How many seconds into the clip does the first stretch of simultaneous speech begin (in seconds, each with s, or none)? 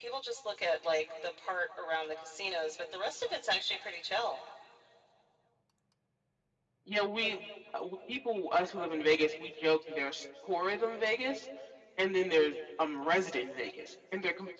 none